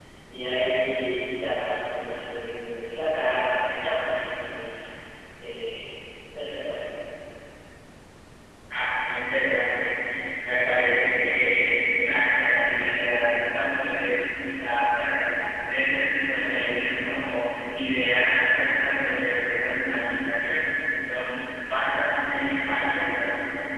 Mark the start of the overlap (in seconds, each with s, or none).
none